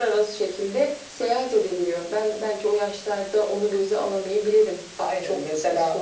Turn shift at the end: No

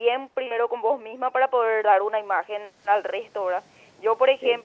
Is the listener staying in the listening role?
Yes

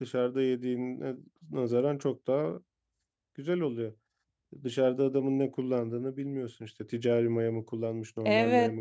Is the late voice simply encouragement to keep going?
No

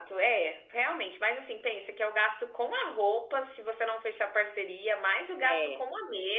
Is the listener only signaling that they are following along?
Yes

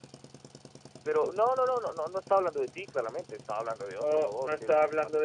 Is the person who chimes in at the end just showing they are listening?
No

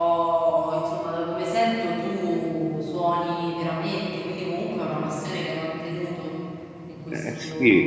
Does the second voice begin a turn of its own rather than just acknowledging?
Yes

